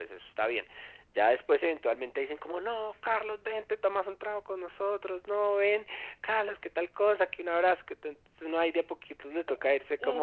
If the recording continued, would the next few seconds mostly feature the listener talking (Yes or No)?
Yes